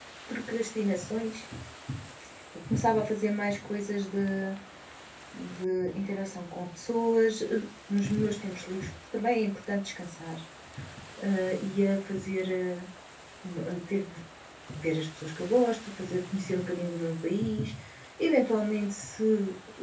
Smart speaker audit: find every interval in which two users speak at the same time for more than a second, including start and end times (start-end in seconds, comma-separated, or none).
none